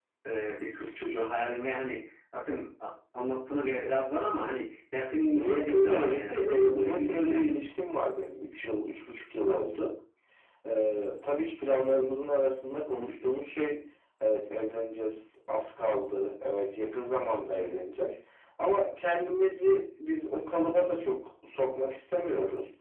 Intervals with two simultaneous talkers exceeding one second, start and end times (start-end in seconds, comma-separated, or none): 5.3-7.4